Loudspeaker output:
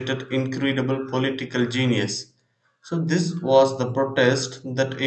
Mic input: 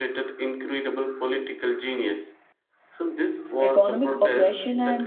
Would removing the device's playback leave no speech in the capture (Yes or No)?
No